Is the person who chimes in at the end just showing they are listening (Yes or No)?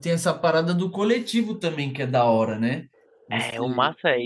No